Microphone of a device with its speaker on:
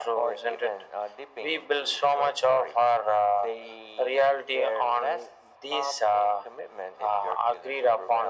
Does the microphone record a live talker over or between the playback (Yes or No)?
No